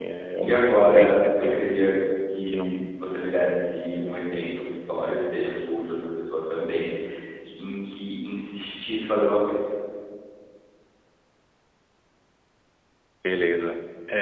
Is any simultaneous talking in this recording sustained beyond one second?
Yes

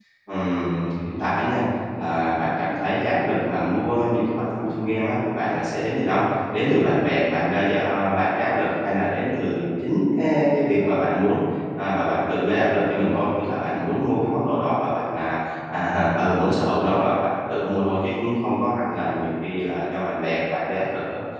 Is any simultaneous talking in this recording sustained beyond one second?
No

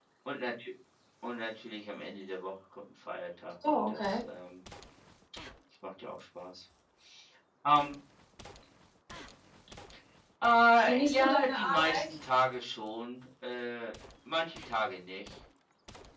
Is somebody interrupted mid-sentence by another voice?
Yes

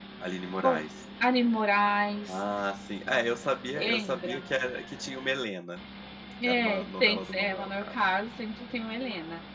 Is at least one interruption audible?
Yes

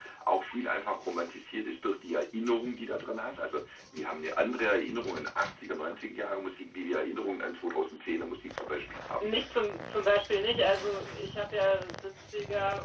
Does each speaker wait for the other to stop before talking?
Yes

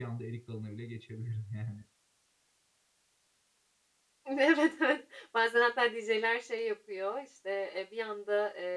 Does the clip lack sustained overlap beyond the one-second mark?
Yes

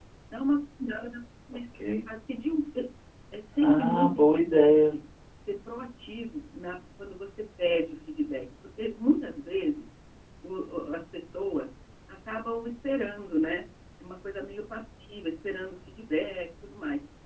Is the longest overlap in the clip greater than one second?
Yes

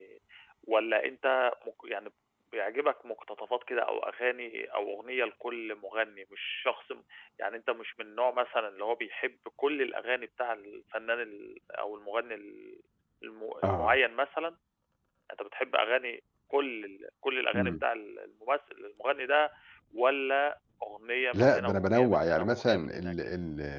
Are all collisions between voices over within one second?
No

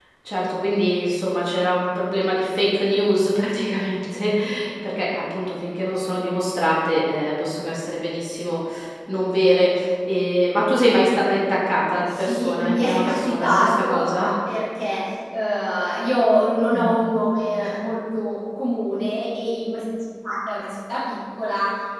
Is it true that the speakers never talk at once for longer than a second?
No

